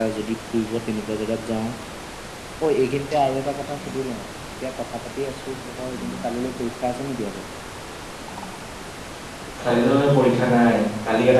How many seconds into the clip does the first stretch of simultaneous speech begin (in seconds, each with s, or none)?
none